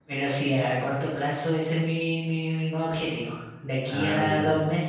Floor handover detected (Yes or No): No